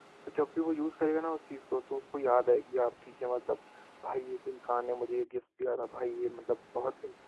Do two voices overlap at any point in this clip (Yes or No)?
No